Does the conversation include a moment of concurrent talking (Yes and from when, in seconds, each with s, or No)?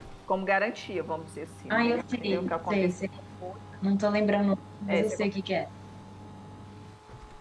Yes, from 1.7 s